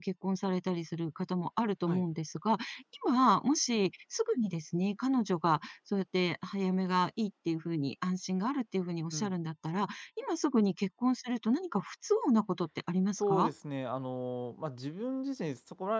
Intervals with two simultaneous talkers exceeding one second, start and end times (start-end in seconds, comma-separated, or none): none